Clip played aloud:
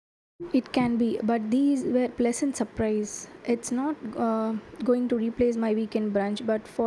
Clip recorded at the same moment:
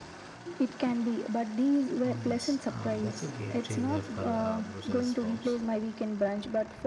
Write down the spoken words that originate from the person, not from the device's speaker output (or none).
Oh yes, uh, that's a game changer for uh, Brussels sprouts.